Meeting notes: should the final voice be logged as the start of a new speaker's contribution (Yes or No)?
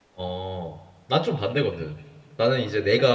No